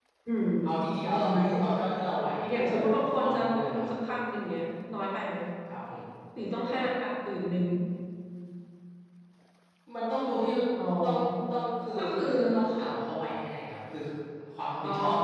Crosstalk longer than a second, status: present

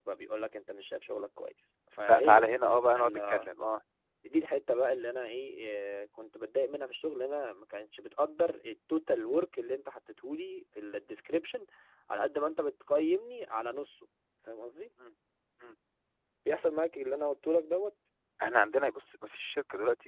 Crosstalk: present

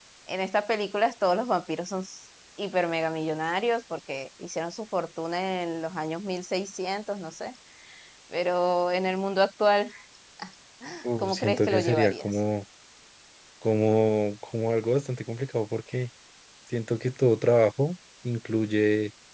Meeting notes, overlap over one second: present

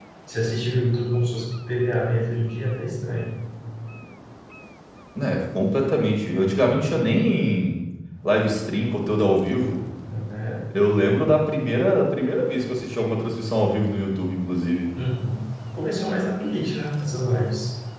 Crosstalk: none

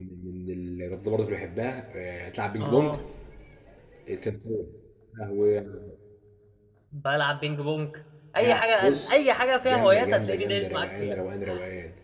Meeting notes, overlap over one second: present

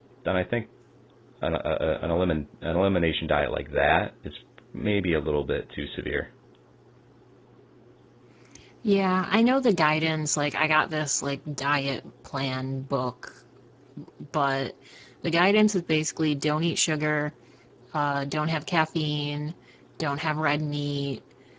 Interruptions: none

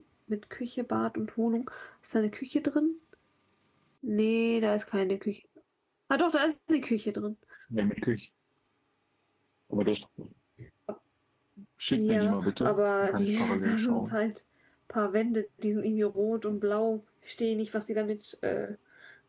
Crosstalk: present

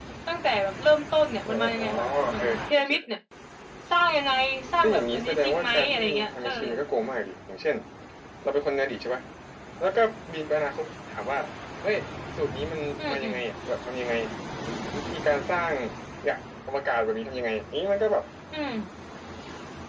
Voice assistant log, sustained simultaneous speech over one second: present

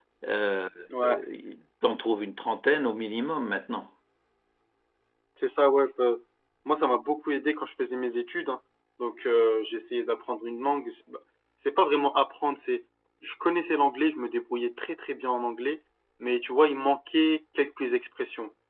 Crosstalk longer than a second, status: none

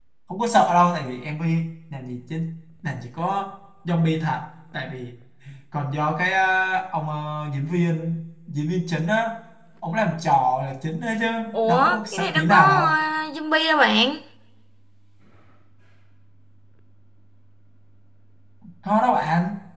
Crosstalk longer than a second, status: present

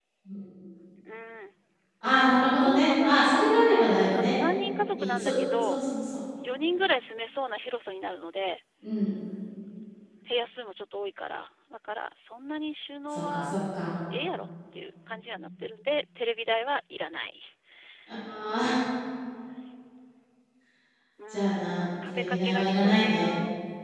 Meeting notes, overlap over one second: present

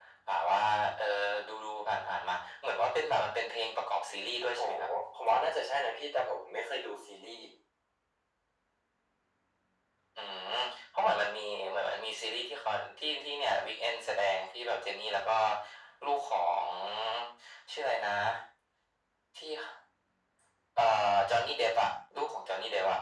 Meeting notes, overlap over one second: none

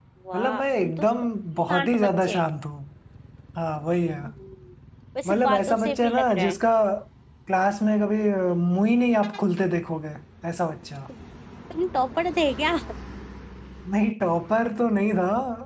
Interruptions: present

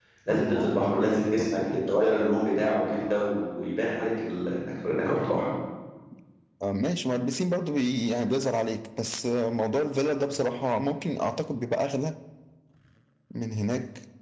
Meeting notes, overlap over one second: present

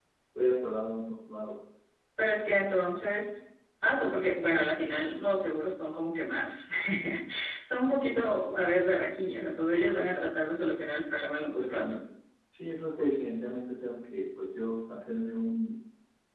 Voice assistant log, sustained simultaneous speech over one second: none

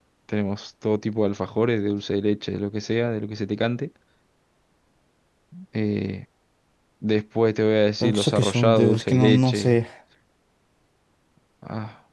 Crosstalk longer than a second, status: present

